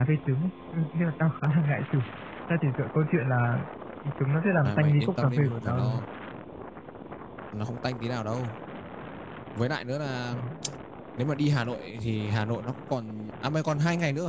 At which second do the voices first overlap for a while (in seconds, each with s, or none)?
4.7 s